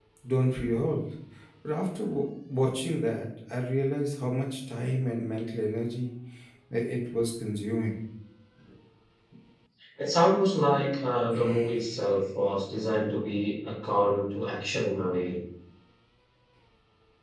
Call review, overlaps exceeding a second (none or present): none